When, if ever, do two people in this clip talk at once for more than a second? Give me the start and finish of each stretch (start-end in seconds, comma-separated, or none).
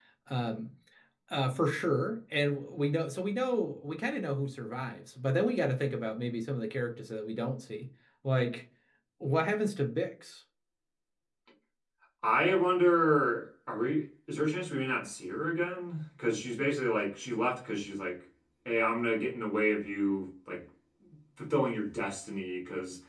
none